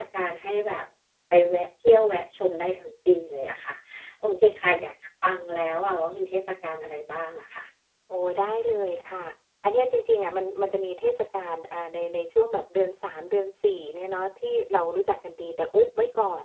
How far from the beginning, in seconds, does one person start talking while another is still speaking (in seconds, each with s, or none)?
none